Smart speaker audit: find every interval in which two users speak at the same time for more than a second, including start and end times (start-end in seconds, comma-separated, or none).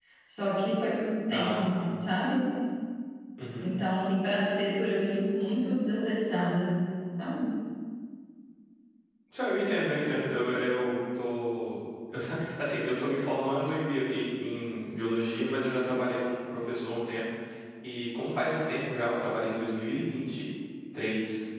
none